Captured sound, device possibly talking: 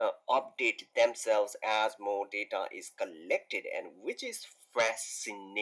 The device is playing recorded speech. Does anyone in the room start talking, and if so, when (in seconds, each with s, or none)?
none